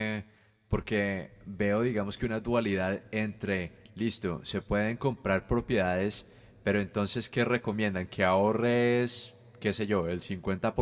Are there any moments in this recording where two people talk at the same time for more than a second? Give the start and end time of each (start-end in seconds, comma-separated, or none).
none